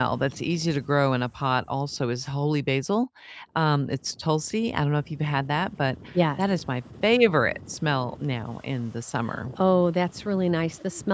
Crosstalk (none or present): none